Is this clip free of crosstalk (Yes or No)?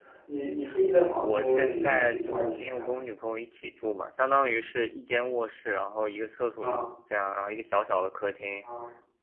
No